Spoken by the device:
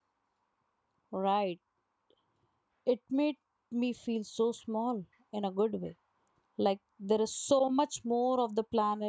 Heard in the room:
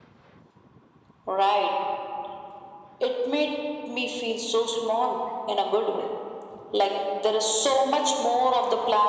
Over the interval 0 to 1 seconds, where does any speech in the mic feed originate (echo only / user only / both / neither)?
neither